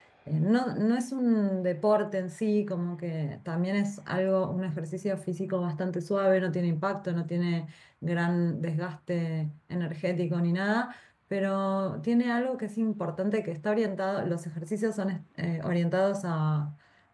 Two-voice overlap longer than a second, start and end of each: none

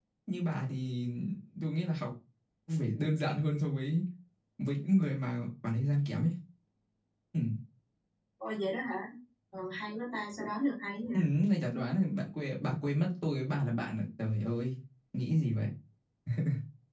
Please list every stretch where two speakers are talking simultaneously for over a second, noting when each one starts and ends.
none

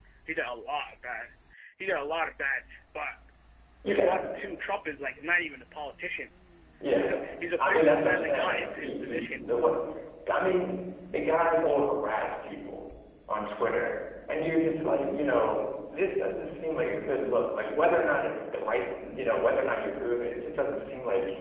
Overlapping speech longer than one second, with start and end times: 7.6-9.4

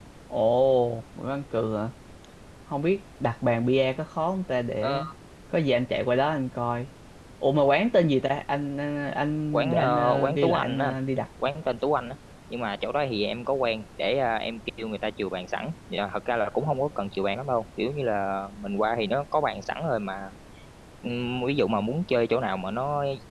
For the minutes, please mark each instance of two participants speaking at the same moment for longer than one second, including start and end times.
9.5-10.9

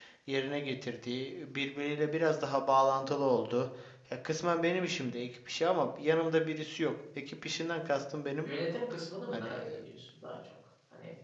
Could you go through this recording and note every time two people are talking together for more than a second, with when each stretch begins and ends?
none

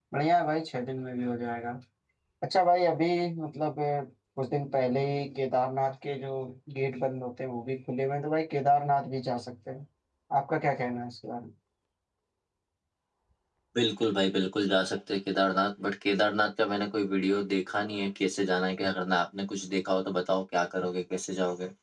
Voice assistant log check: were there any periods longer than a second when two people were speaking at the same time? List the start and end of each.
none

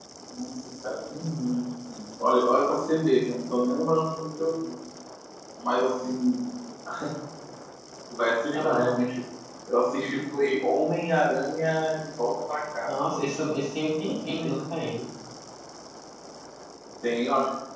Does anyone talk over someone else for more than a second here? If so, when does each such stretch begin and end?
none

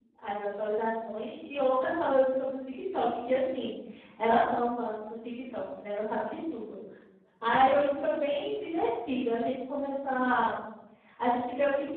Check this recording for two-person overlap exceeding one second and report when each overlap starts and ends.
none

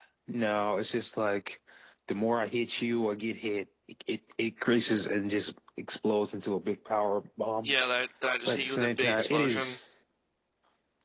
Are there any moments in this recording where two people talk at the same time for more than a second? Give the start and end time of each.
8.5-9.8

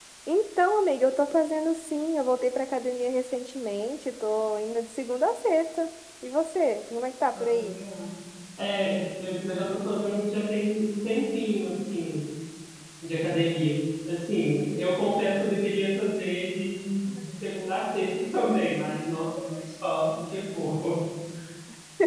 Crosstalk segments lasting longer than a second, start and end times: none

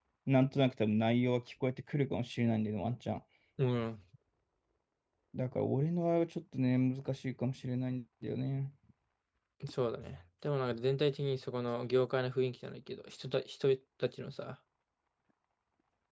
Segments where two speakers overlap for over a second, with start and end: none

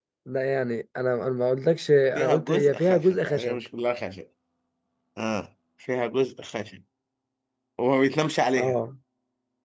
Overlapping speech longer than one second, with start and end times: 2.1-3.6

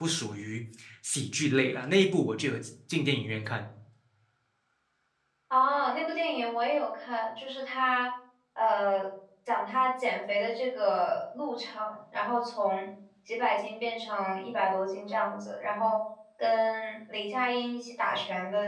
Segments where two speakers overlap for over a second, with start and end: none

